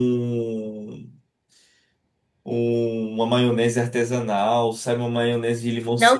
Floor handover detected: Yes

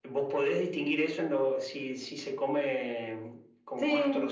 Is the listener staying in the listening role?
Yes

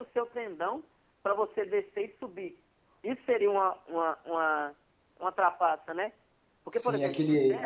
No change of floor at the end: No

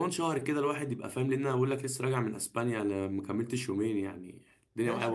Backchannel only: No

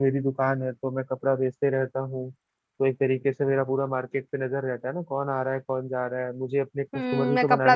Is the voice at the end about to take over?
Yes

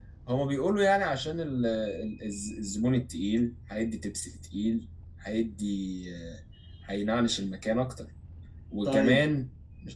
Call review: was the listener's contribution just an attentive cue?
Yes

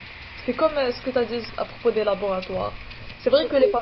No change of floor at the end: Yes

